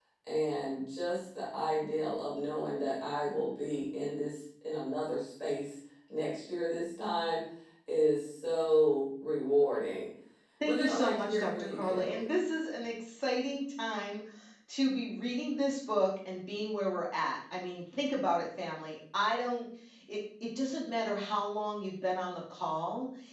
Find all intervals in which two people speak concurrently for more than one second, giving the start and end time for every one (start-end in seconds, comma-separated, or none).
10.6-12.3